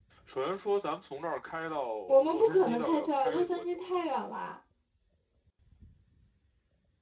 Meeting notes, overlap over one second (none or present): present